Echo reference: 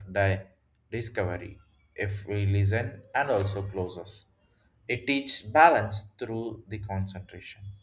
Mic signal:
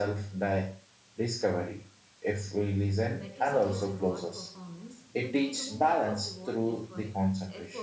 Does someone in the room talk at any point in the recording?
Yes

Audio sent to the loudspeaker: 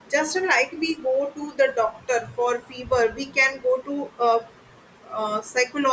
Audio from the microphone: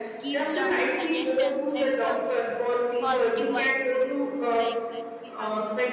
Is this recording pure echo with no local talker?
No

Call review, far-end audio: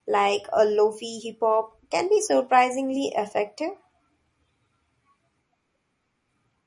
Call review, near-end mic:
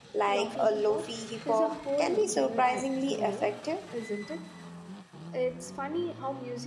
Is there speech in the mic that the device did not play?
Yes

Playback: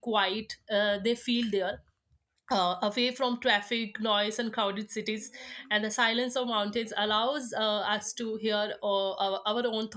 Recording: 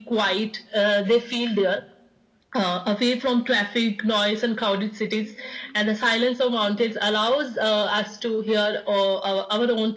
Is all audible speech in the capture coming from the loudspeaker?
Yes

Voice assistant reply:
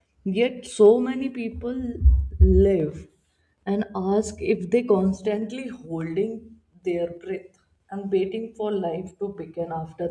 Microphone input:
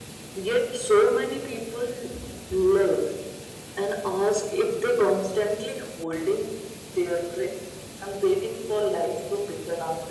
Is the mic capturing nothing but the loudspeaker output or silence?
Yes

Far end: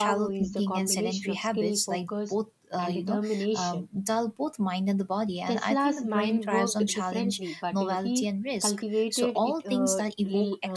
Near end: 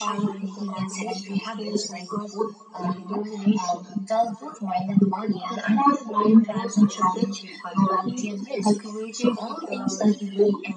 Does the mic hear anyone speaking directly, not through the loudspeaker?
No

